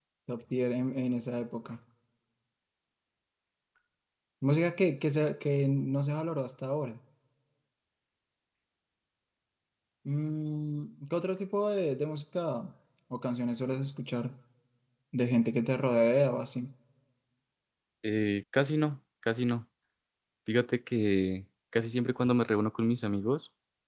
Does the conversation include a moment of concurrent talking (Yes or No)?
No